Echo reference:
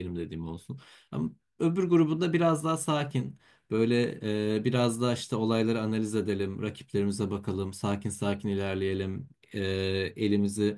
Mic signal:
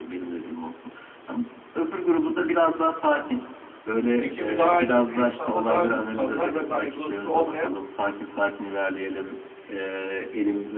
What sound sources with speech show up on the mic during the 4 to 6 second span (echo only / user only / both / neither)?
both